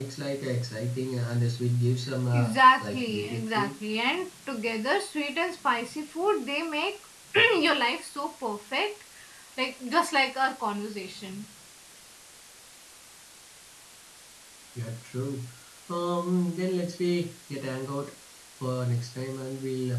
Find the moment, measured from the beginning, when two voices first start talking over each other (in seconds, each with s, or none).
2.3 s